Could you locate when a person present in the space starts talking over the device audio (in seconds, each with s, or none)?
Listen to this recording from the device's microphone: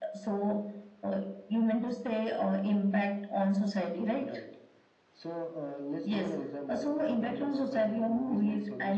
none